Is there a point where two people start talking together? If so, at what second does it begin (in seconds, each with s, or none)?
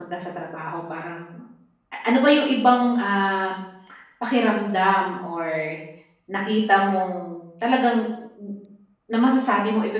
none